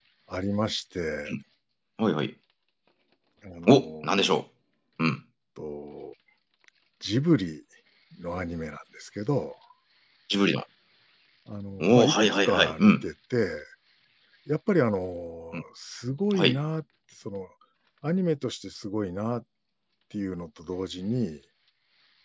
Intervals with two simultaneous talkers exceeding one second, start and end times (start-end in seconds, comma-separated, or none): 11.8-13.0